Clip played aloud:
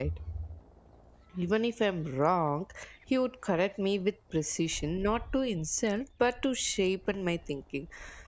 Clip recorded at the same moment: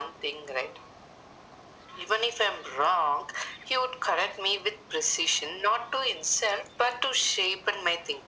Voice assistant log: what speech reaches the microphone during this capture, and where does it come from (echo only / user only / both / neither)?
echo only